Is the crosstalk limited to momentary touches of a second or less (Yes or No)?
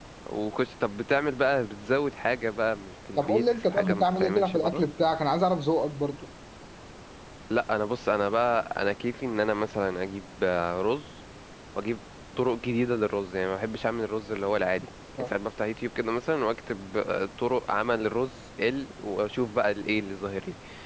No